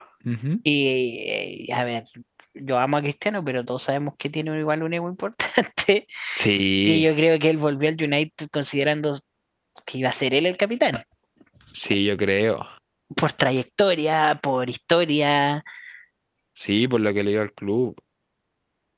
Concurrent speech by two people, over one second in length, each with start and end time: none

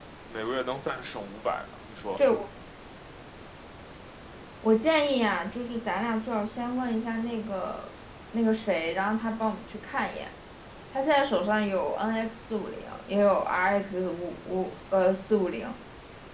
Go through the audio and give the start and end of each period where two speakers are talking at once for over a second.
none

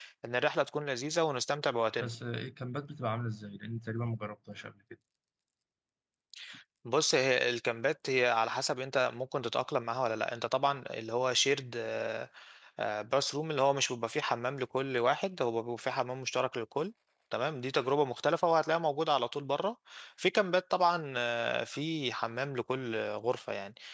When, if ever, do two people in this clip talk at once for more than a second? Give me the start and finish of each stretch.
none

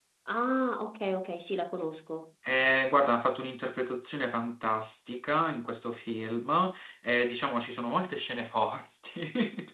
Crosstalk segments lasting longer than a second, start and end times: none

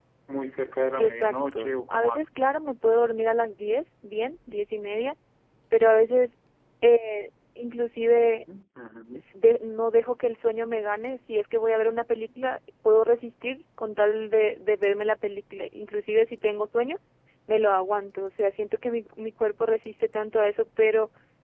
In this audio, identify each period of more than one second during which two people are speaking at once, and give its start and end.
1.0-2.4

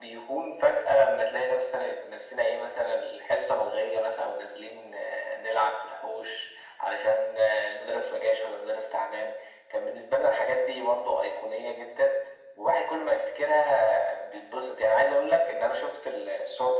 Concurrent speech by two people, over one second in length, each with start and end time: none

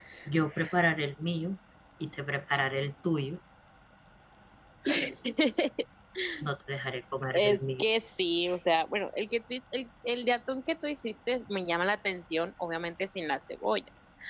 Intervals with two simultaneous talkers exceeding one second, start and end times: none

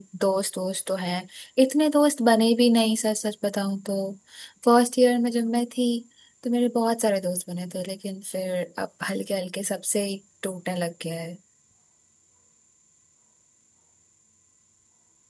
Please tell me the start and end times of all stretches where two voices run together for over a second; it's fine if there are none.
none

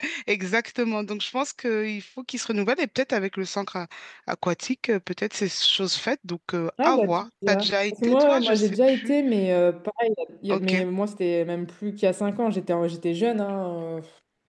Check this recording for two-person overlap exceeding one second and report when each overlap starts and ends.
6.8-9.2

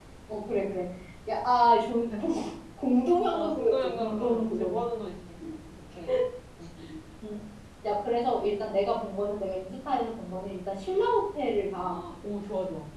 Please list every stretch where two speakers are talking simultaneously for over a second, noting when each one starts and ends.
3.3-4.8

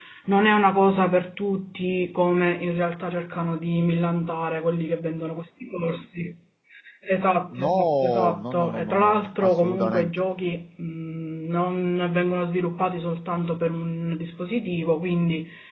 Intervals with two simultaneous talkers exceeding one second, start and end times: 7.5-10.1

